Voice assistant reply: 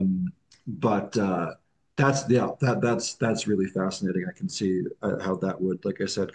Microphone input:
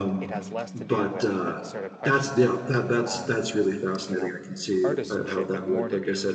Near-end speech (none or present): present